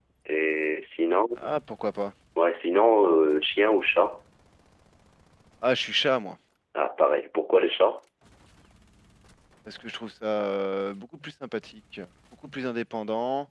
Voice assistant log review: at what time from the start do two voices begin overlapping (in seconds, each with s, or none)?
none